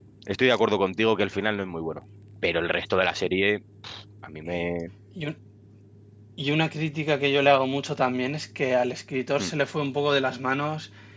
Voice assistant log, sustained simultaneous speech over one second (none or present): none